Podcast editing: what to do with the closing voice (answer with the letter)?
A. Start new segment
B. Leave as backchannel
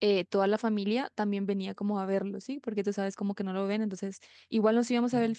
B